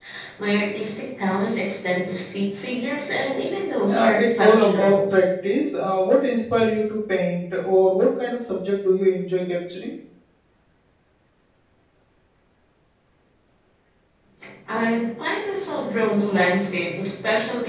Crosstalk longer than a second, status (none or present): present